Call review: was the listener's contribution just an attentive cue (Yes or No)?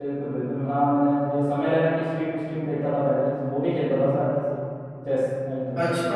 No